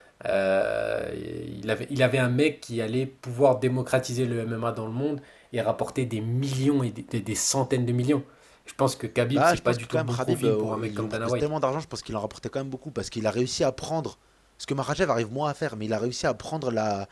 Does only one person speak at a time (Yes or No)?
No